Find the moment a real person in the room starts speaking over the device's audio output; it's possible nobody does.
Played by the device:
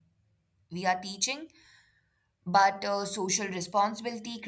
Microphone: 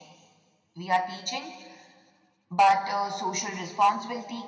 none

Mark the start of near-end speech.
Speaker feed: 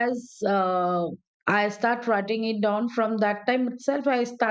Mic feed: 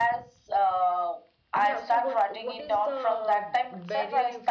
1.6 s

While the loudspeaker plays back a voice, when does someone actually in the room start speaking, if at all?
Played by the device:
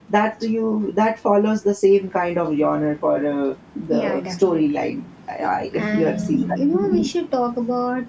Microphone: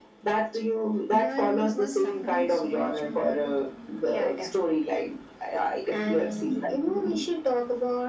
1.1 s

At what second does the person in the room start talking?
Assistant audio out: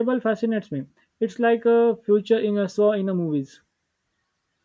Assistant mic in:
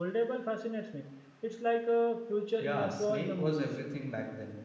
2.6 s

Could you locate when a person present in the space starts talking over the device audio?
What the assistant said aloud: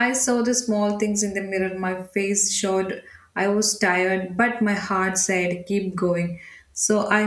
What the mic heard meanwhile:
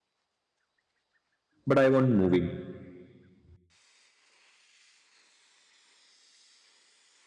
1.7 s

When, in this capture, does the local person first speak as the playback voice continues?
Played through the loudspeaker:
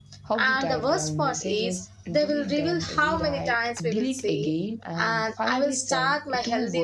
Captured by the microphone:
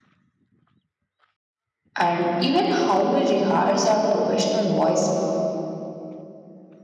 2.0 s

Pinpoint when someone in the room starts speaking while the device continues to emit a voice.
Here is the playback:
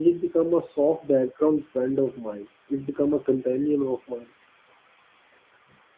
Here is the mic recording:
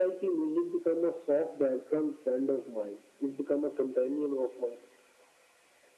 none

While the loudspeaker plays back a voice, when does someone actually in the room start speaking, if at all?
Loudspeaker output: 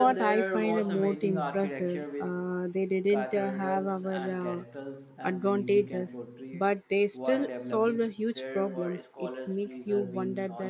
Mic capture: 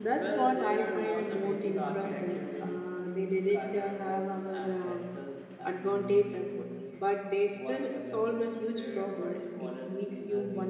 none

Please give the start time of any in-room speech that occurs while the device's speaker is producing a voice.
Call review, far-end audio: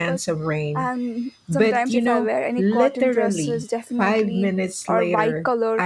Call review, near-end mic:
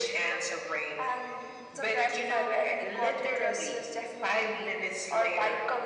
none

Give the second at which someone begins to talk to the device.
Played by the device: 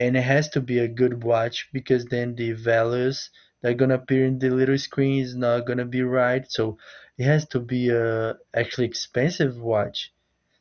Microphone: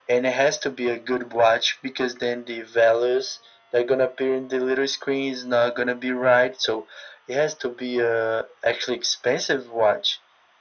none

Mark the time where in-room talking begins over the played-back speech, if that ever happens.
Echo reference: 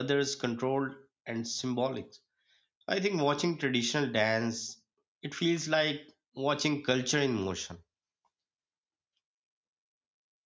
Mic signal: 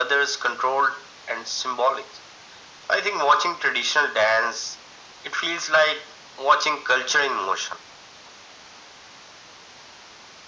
none

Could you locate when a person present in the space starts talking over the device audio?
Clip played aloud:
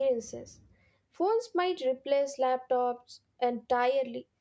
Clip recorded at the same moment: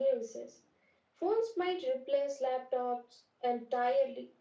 none

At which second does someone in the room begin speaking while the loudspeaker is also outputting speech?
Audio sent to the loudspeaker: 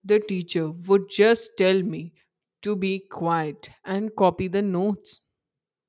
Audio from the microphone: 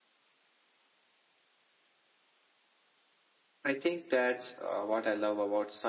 3.6 s

